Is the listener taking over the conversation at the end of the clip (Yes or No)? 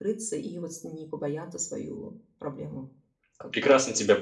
Yes